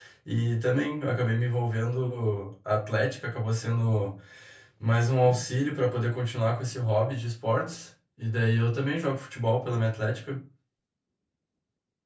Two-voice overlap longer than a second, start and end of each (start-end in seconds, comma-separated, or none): none